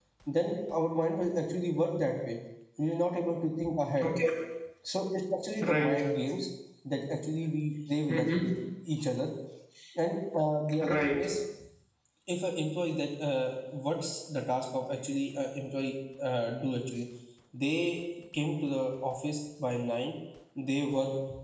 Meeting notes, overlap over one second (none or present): none